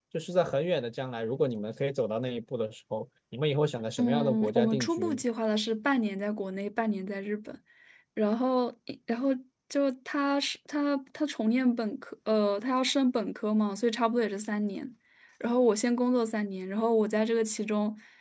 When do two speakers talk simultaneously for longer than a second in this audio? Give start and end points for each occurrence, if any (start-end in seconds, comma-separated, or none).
4.0-5.2